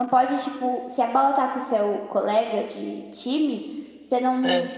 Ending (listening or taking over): listening